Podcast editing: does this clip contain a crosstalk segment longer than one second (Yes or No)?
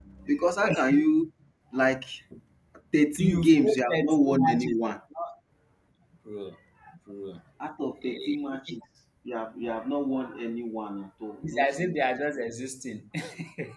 Yes